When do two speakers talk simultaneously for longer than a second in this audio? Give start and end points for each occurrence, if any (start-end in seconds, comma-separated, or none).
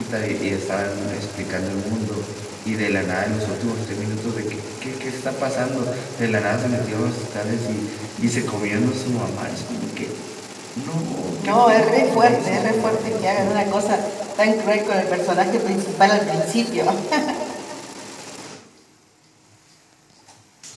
11.4-13.5